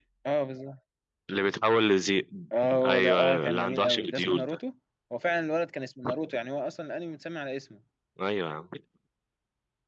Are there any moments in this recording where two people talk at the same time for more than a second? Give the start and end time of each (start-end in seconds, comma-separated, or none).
2.6-4.6